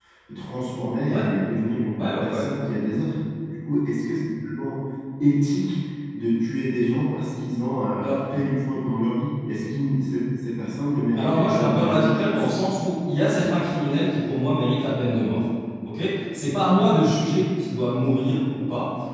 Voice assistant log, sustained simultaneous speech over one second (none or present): present